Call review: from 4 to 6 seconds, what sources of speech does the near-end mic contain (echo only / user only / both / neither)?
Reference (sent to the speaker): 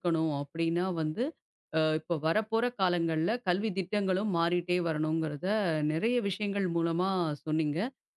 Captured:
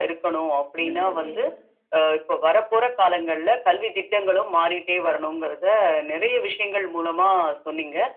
echo only